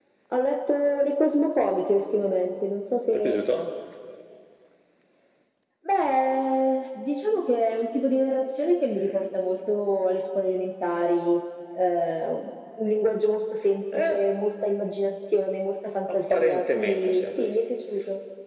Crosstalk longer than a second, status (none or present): present